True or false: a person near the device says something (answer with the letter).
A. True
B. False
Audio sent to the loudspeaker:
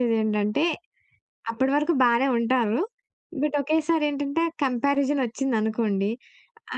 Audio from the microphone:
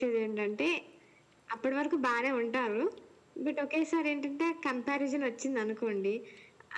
B